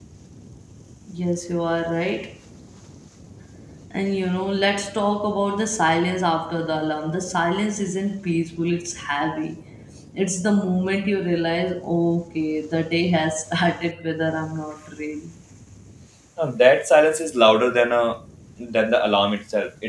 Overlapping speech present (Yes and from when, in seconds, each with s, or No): No